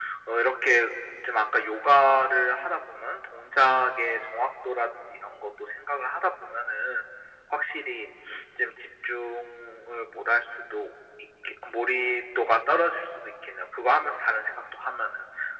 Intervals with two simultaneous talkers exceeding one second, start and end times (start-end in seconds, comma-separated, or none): none